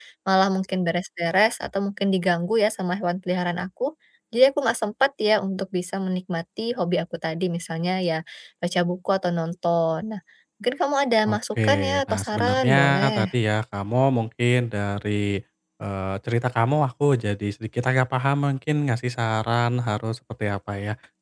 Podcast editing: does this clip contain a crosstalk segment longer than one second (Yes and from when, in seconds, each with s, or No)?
Yes, from 11.3 s